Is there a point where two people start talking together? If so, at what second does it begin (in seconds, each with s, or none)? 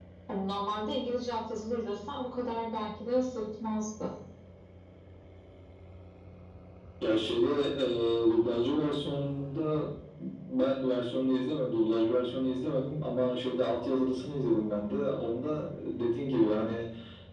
none